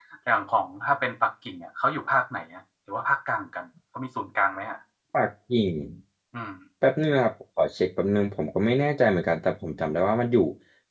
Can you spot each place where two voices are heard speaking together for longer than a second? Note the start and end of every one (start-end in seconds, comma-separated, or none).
none